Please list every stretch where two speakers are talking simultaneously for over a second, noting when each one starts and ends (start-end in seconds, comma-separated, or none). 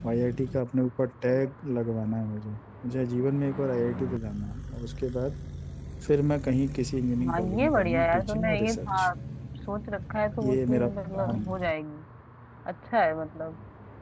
7.3-9.1, 10.4-11.6